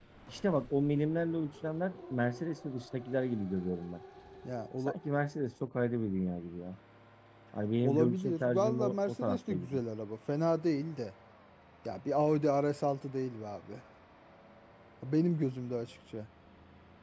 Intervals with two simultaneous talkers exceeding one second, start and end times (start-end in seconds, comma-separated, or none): 7.8-9.7